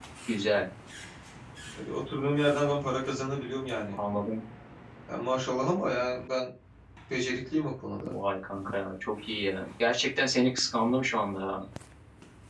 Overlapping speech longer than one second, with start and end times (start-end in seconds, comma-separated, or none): none